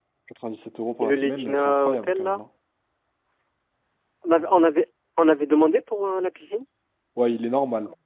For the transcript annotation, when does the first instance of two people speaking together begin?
1 s

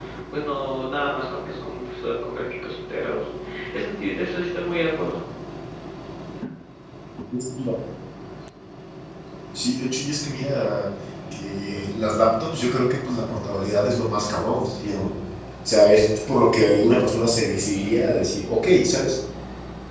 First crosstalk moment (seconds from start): none

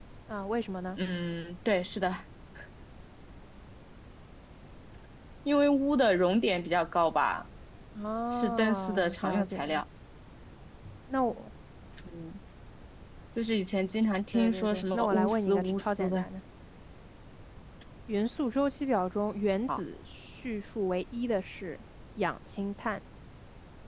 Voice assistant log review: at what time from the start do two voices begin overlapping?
8 s

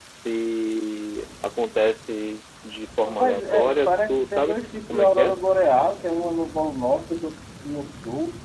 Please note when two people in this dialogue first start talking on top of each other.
3 s

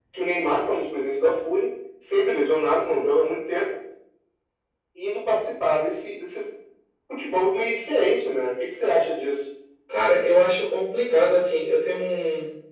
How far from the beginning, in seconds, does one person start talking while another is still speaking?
none

